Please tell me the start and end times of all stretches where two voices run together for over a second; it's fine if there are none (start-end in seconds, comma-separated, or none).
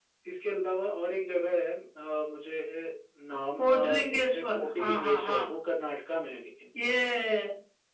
3.6-5.4